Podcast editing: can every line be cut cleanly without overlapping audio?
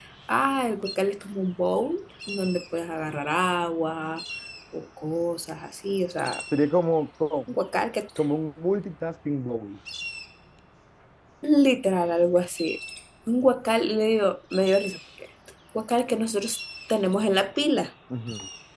Yes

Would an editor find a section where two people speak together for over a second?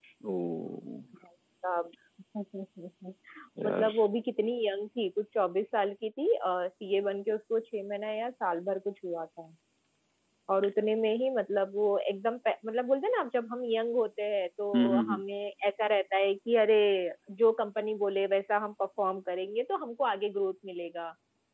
No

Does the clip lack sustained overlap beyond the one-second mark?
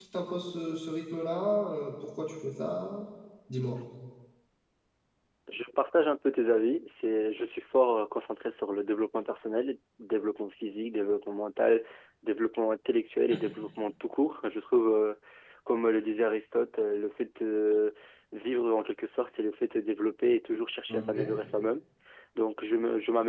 Yes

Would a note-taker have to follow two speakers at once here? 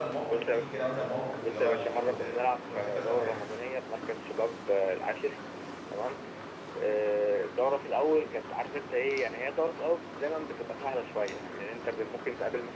Yes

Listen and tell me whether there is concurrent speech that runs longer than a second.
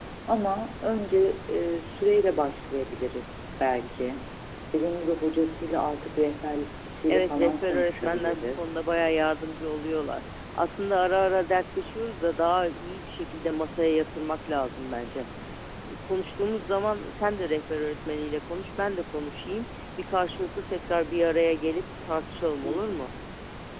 Yes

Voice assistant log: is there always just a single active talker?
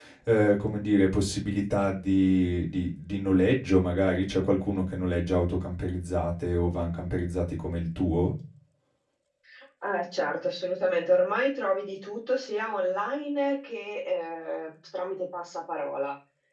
Yes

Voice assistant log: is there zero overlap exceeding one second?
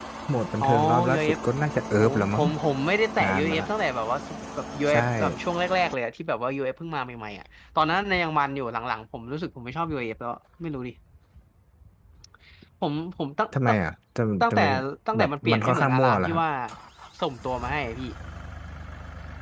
No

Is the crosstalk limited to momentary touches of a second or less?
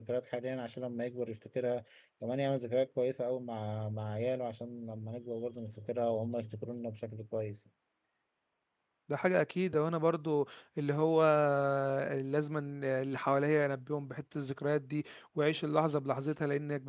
Yes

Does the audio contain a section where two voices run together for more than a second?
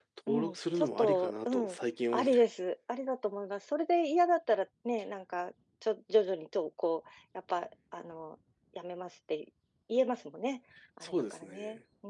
Yes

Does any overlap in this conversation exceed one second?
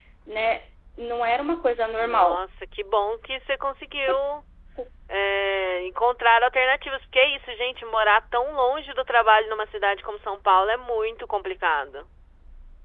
No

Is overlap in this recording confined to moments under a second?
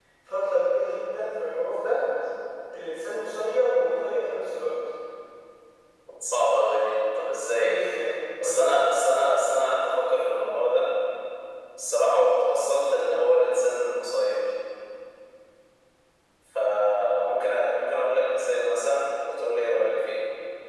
Yes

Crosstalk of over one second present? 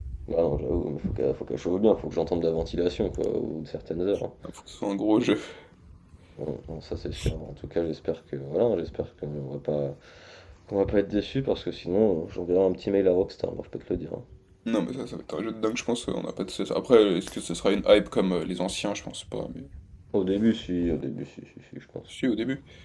No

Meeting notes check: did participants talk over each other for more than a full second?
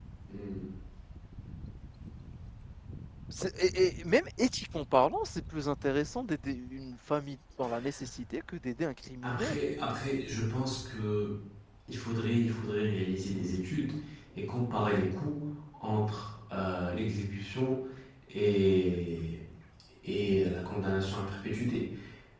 No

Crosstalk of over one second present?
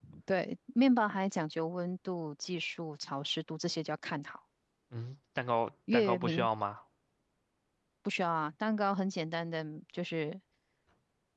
No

